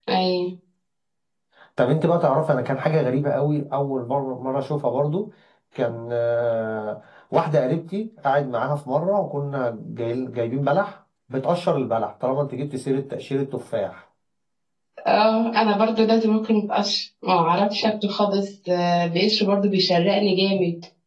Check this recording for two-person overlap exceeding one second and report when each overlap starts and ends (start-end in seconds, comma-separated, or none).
none